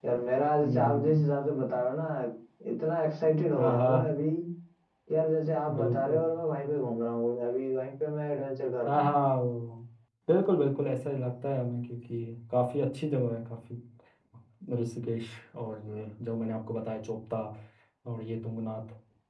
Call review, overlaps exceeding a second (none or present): none